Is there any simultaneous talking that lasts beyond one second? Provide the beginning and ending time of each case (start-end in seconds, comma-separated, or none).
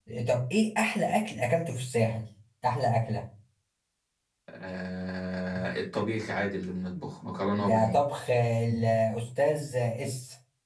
none